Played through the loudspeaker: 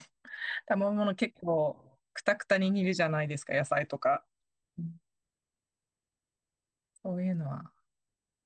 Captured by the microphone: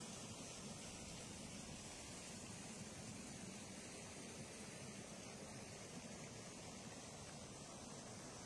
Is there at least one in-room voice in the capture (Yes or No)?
No